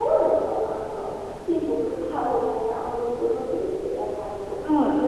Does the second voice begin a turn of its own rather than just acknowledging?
Yes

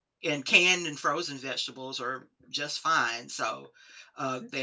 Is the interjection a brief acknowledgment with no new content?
Yes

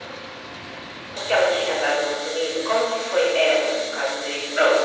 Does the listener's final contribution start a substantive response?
Yes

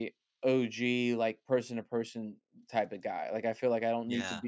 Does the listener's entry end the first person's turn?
No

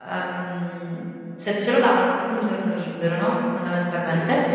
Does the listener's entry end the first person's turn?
No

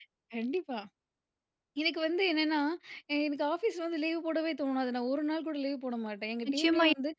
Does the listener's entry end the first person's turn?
Yes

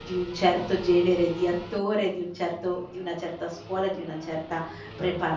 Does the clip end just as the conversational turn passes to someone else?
No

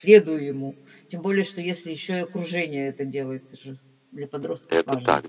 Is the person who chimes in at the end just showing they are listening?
No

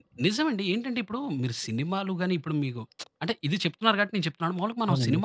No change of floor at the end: Yes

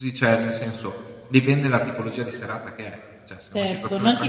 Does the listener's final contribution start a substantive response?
Yes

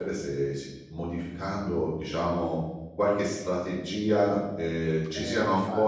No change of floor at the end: Yes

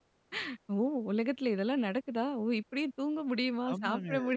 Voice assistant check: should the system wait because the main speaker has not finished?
No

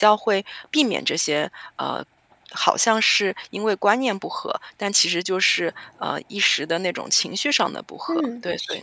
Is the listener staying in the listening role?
No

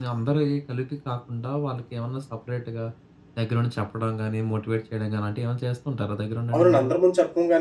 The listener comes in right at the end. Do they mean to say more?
Yes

